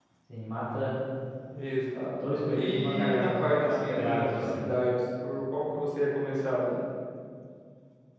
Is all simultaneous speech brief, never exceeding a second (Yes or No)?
No